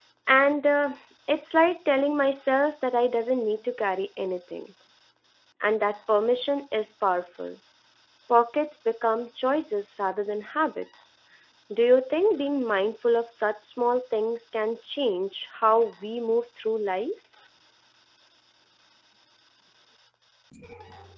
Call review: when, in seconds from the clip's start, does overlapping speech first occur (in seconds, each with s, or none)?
none